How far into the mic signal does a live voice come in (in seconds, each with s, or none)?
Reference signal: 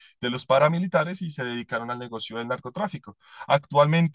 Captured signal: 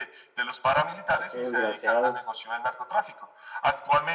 1.1 s